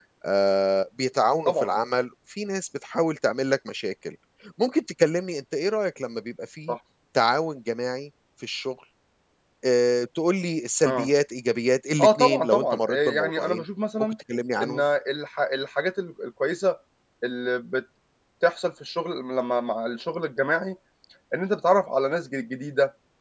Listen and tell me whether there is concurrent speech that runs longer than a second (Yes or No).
Yes